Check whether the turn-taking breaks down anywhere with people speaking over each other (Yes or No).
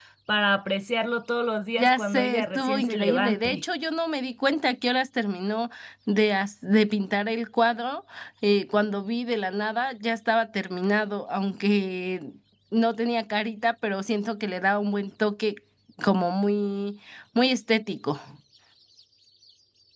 Yes